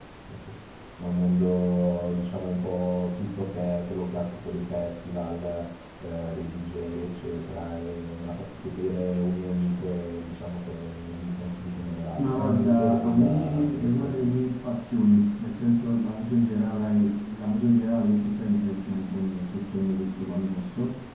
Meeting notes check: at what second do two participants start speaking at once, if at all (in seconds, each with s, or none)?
12.2 s